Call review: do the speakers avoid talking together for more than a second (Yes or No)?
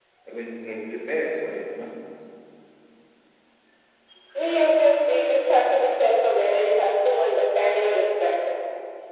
Yes